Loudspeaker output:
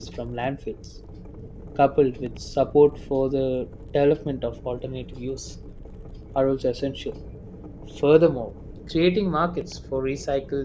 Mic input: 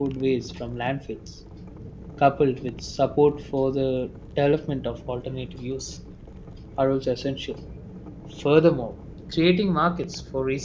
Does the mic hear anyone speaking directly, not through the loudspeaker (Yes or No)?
No